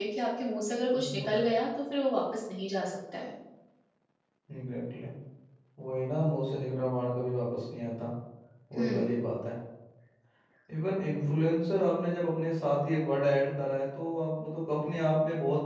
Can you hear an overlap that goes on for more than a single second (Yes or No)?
No